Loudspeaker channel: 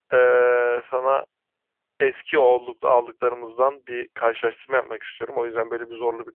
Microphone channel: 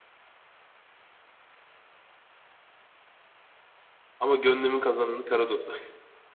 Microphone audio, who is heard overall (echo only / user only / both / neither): user only